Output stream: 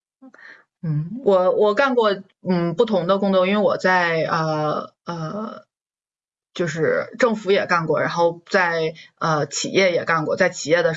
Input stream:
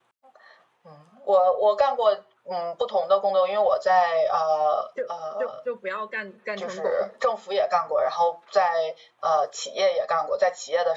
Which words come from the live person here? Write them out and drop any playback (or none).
就就就不要干干成狗。